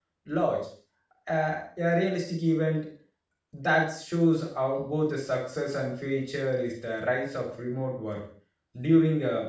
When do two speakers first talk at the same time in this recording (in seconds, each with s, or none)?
none